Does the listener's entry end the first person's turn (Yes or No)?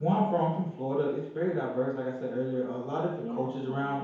No